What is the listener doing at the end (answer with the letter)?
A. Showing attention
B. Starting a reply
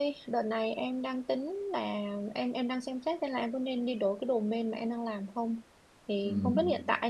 A